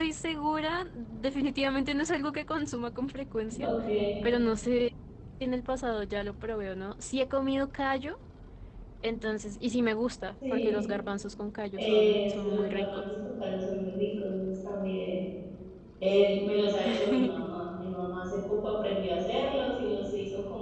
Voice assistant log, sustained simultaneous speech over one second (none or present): present